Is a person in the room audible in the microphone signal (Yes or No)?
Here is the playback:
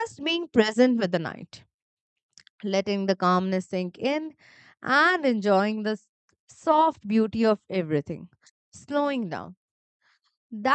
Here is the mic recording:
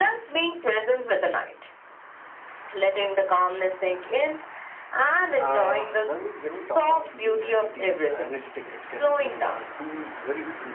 Yes